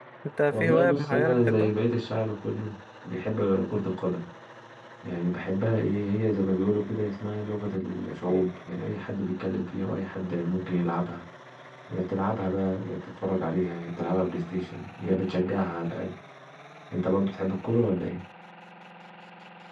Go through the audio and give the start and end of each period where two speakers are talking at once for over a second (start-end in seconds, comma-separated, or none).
0.5-1.7